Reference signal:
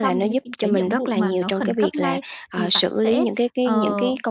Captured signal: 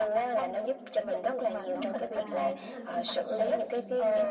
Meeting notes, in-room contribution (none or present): present